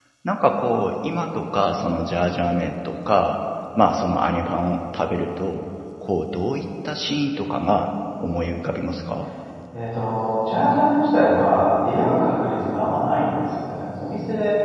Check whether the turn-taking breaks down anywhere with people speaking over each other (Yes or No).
No